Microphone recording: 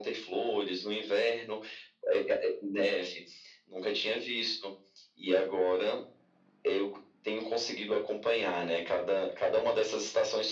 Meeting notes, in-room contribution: none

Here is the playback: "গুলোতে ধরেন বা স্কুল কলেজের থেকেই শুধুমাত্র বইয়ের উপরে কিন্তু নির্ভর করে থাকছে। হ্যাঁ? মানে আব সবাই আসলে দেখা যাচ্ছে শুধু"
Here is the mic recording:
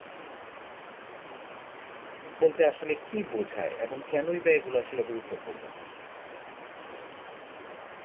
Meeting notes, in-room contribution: present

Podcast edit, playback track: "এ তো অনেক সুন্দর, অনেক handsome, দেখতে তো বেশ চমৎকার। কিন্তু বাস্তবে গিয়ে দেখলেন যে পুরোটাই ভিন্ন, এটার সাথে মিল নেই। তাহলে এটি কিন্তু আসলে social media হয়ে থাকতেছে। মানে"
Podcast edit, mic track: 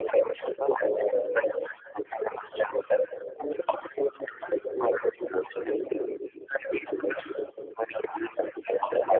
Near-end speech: none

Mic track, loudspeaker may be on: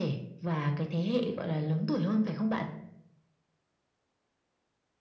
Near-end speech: none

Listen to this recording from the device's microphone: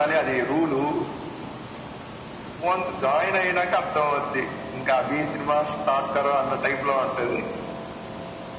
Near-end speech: none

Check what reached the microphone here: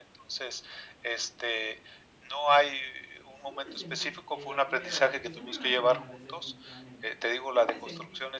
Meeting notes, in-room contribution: present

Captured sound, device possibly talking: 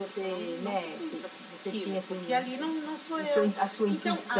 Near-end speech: none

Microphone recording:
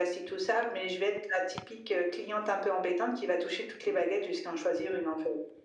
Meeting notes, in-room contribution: none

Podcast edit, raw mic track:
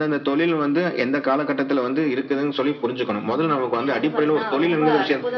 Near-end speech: present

